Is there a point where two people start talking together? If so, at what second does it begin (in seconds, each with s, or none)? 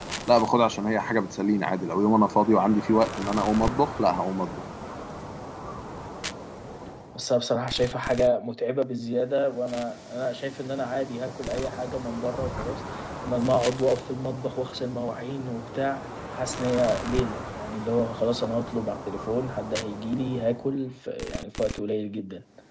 none